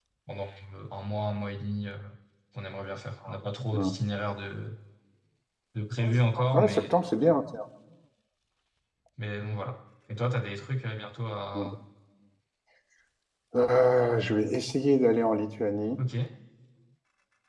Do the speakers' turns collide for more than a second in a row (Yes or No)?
No